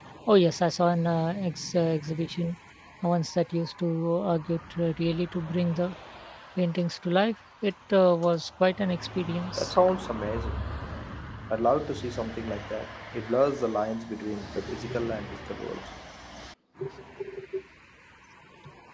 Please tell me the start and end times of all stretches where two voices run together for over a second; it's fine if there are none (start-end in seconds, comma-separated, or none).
none